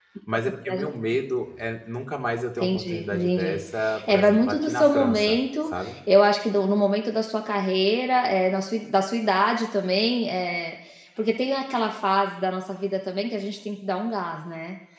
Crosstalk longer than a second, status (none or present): present